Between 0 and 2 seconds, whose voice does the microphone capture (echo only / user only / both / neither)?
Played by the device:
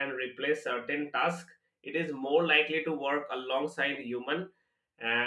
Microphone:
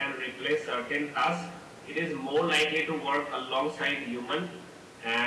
echo only